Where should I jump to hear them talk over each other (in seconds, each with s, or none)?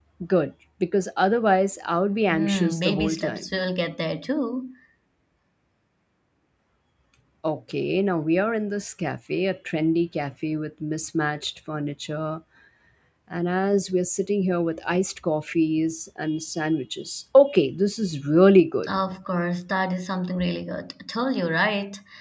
2.3 s